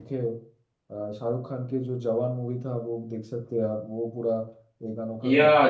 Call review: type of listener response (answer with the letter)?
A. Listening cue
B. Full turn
B